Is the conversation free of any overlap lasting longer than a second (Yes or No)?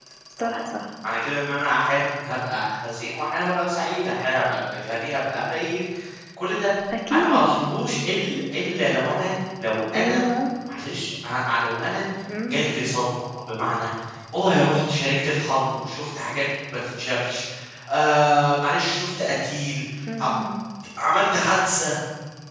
Yes